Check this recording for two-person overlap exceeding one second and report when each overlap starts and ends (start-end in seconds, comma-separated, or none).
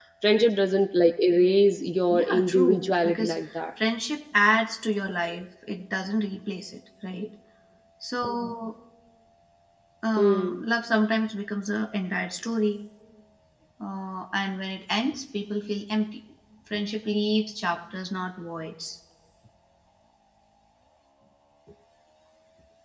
2.1-3.4